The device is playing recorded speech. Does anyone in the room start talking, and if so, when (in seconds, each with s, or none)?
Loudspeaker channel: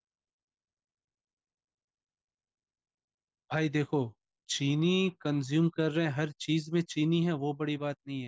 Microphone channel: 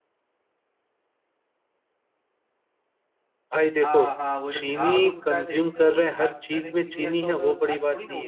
3.8 s